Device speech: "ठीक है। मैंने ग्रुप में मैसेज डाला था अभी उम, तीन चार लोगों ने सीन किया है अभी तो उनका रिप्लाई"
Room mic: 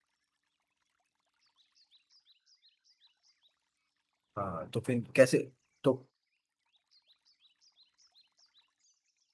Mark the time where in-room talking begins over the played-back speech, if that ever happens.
4 s

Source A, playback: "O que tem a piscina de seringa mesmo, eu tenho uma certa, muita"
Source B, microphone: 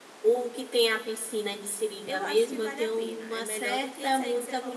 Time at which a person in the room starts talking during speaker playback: 2 s

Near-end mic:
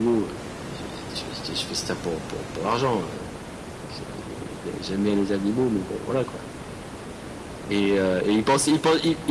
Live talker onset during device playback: none

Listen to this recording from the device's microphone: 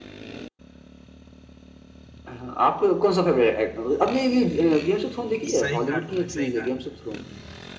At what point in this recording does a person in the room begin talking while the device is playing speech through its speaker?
6 s

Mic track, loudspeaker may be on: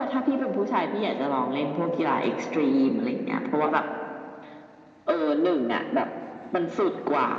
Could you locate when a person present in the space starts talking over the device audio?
none

